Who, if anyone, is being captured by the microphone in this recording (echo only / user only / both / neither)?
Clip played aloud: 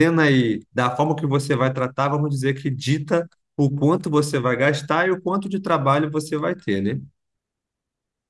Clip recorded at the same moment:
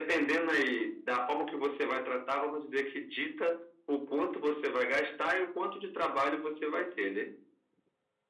echo only